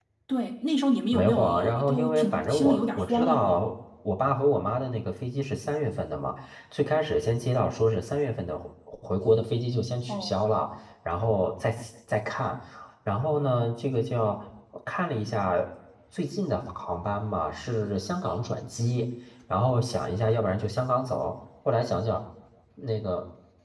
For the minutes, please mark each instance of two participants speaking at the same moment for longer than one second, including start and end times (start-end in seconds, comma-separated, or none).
1.1-3.5